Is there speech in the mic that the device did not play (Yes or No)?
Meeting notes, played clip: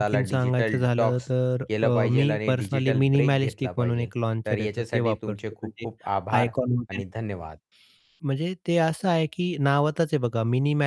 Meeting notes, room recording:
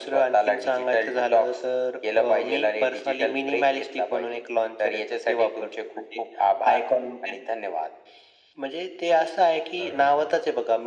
Yes